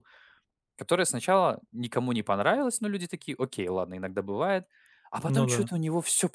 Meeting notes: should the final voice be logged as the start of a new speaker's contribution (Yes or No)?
No